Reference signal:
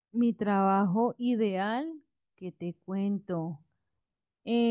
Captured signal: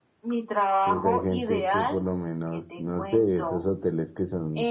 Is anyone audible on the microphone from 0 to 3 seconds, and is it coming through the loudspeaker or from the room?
both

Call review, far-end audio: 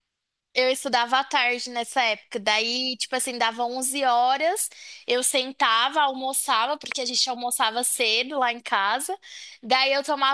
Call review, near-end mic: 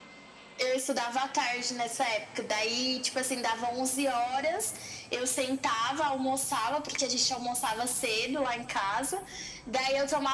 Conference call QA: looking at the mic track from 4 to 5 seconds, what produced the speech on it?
echo only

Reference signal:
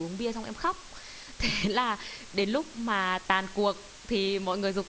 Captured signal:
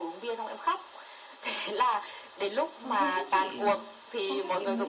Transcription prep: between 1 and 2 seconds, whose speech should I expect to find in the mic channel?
echo only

